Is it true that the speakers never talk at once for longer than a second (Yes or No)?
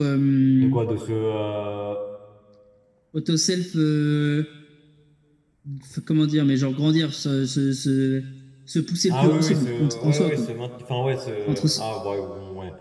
No